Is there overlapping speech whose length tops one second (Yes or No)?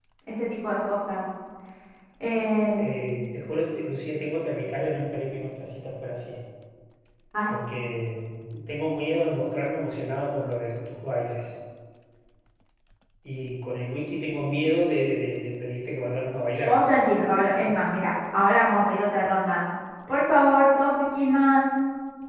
No